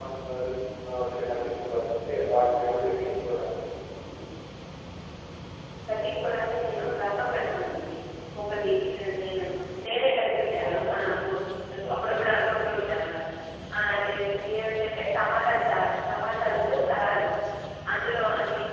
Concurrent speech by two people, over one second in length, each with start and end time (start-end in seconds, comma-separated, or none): none